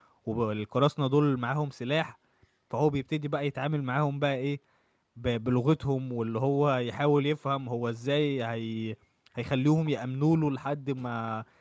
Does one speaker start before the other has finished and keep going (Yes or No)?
No